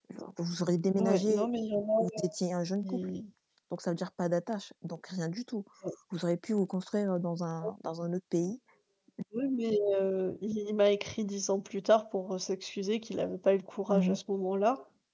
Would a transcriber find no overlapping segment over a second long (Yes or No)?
Yes